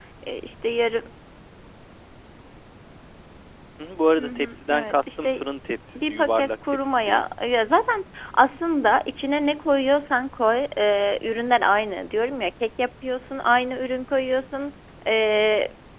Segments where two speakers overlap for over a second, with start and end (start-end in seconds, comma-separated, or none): 4.2-5.4, 6.0-7.2